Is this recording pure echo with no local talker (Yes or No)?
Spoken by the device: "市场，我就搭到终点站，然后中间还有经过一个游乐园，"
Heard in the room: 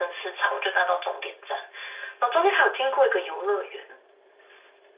Yes